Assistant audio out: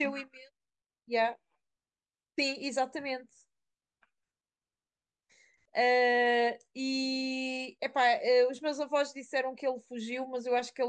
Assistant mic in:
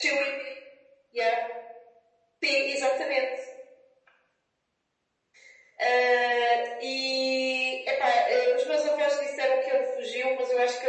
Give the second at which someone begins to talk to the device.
none

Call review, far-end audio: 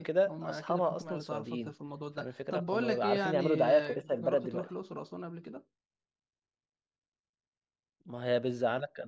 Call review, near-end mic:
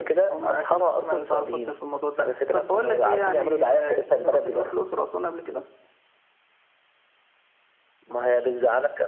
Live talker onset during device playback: none

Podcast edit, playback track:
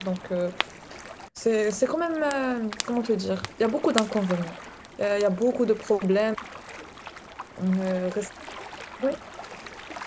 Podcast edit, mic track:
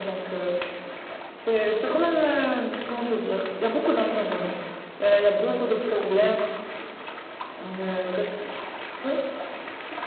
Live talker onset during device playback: none

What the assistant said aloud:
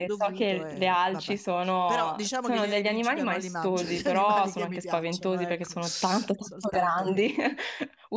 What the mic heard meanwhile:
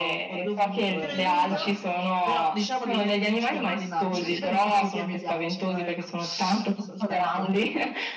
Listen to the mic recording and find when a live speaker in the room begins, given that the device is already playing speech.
1 s

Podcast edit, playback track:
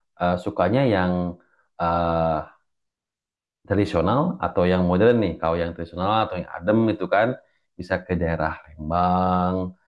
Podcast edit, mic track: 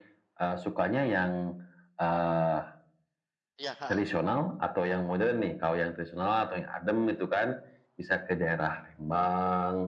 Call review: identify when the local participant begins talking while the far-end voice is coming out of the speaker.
4 s

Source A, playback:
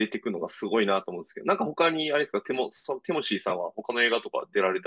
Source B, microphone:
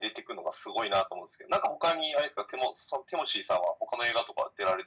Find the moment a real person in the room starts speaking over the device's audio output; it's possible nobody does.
none

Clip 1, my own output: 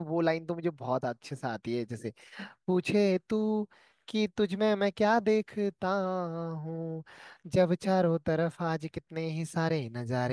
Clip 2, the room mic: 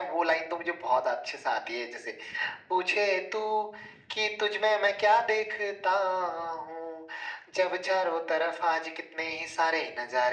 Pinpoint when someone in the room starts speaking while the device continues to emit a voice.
none

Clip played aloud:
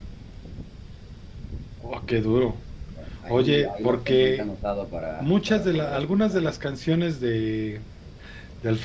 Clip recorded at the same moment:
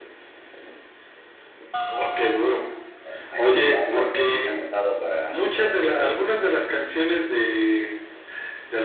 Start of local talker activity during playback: none

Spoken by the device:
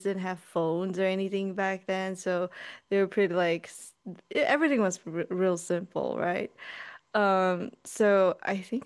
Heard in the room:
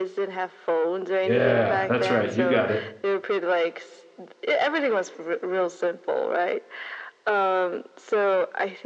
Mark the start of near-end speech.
1 s

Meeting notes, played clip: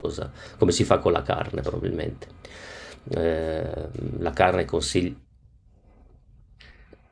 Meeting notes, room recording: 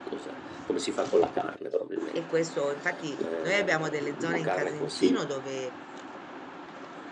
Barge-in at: 2 s

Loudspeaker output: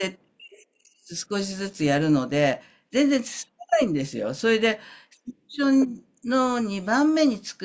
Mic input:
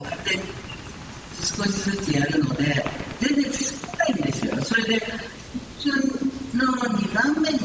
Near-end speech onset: none

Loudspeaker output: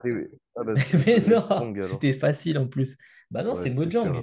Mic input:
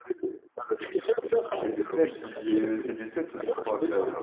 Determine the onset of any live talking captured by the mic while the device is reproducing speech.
2 s

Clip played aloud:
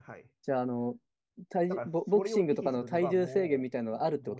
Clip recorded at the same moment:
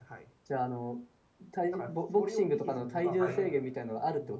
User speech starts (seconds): 3 s

